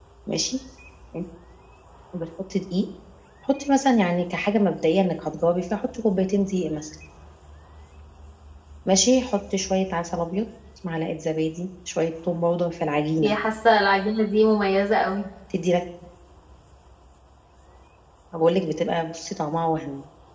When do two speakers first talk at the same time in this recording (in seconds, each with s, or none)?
none